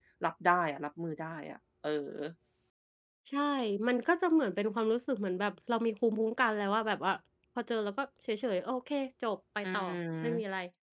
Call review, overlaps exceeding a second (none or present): none